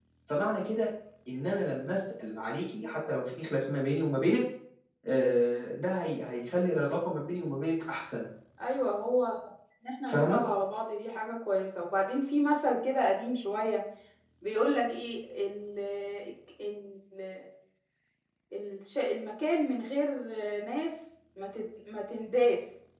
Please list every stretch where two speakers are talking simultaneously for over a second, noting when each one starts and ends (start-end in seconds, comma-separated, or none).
none